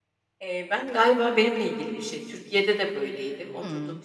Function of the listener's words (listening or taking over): listening